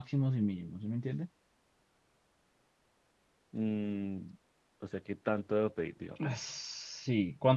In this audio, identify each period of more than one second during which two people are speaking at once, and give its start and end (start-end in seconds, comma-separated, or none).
none